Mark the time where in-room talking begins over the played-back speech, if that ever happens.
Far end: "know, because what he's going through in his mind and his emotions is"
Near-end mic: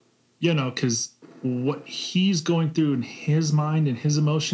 none

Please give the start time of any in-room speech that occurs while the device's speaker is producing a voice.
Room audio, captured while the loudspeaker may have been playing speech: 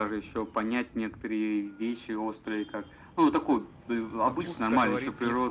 4.2 s

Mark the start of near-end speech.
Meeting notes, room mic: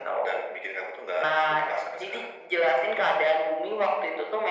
none

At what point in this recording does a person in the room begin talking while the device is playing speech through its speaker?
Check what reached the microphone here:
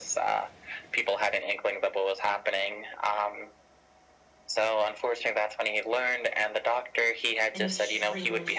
7.5 s

